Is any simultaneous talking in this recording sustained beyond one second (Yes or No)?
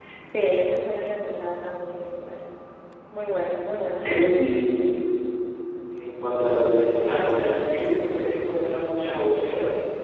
No